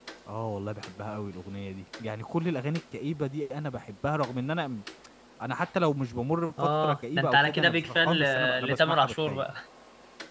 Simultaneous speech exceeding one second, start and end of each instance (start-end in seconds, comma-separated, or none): 6.6-9.4